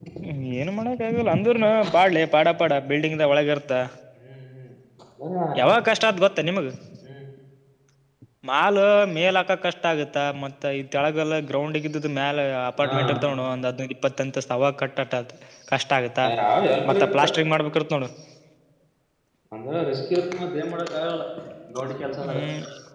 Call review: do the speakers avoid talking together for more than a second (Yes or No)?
Yes